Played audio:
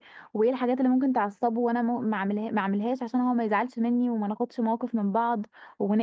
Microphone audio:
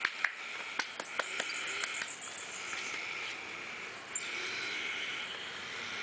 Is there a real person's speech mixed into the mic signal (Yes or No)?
No